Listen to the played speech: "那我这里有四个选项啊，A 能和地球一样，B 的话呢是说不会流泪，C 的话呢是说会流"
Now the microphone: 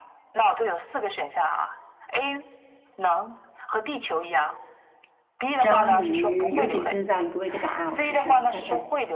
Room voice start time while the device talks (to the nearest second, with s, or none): 6 s